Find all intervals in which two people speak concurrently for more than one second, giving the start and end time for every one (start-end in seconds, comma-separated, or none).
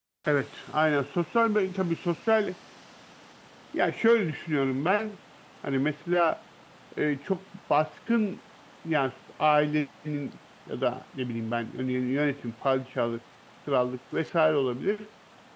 none